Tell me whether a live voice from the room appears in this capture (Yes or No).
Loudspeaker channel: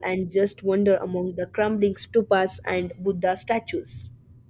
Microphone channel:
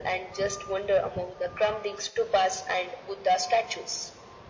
No